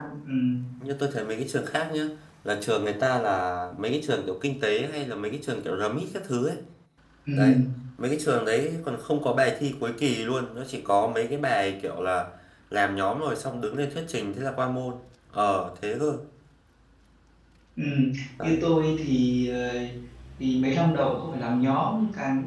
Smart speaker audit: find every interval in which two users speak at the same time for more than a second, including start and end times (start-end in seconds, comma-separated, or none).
none